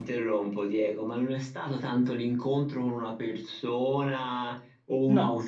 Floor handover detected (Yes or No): No